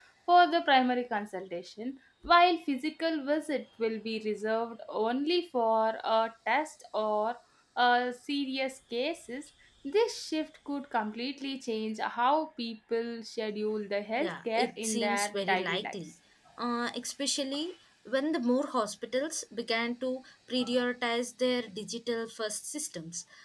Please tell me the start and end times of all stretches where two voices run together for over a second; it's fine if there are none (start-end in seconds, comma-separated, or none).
14.2-15.9